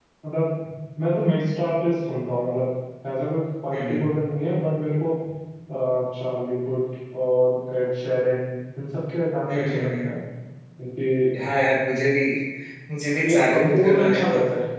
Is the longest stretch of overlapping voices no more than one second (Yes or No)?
No